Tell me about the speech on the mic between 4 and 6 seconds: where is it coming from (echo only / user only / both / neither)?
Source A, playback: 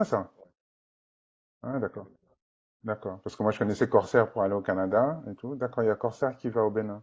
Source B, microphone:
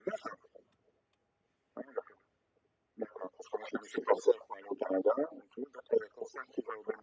echo only